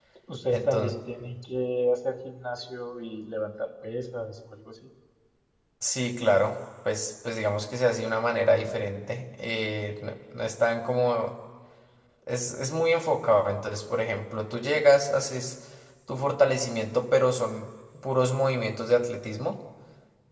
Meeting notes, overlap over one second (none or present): none